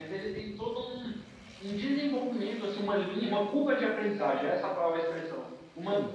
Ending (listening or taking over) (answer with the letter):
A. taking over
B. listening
B